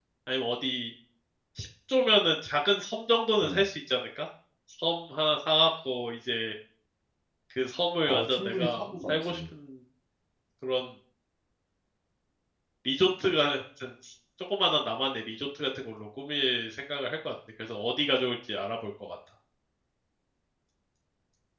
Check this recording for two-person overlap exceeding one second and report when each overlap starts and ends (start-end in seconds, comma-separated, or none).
8.1-9.4